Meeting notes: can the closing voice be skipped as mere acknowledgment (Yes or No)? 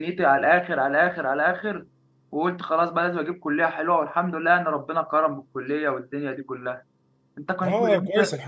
No